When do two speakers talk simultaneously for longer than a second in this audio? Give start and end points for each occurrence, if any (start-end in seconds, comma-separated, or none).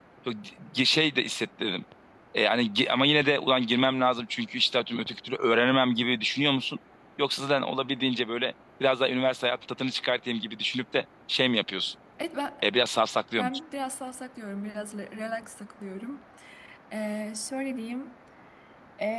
none